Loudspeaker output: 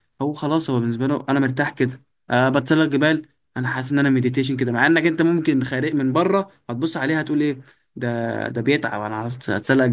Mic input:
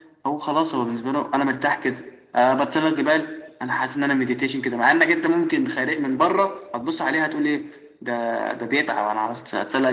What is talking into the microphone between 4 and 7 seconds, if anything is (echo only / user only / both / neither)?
echo only